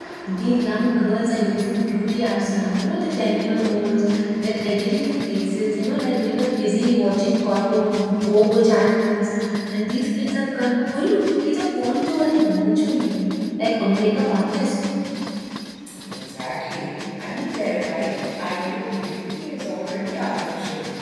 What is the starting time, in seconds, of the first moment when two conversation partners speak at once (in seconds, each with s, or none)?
none